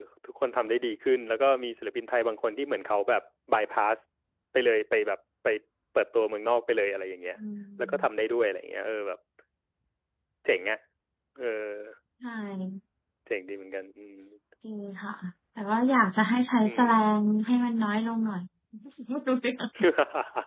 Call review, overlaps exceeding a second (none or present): none